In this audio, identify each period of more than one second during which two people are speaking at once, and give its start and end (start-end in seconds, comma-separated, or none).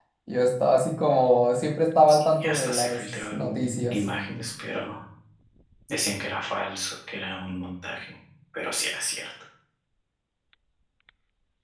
2.4-4.0